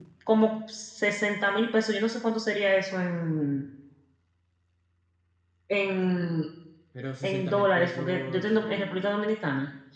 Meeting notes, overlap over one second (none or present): present